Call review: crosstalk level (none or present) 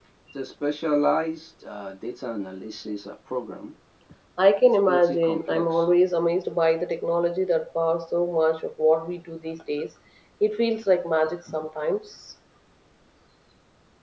present